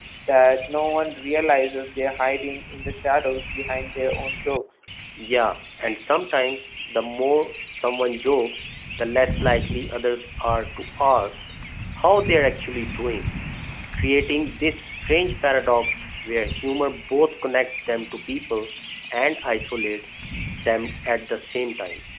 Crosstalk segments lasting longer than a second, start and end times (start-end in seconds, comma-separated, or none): none